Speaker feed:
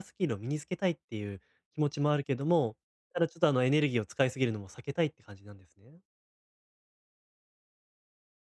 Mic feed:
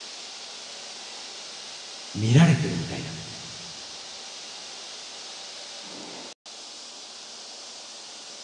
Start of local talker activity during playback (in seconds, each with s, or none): 2.1 s